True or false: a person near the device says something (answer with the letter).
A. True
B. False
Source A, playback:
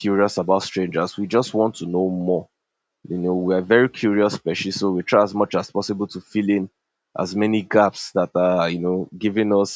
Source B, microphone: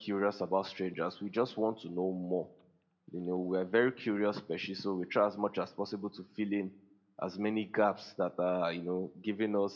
B